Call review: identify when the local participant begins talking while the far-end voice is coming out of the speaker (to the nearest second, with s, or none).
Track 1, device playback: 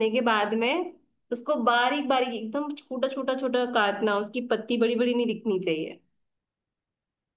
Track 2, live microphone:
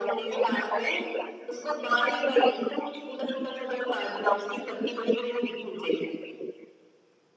none